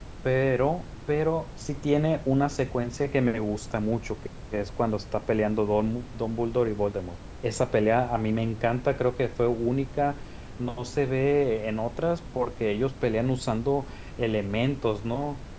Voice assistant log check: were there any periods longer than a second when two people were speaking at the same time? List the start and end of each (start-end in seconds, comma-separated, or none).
none